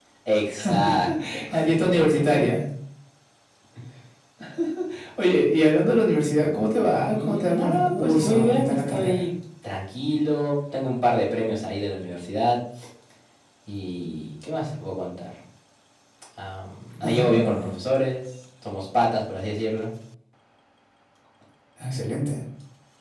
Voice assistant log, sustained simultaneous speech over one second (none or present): present